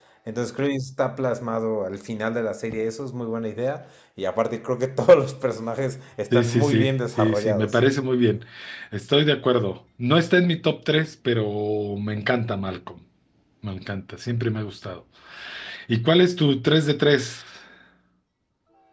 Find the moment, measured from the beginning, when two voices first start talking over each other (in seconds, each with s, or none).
6.3 s